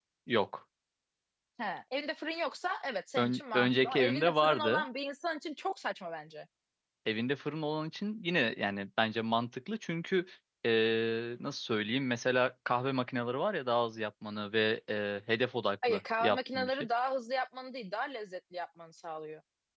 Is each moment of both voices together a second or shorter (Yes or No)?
No